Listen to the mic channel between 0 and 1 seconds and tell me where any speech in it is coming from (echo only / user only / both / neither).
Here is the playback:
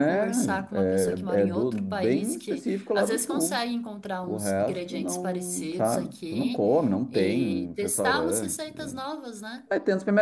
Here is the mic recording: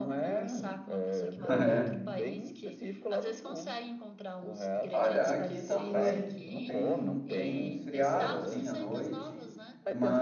echo only